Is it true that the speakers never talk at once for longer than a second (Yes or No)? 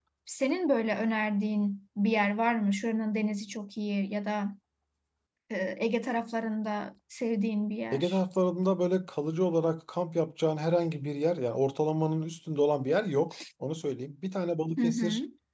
Yes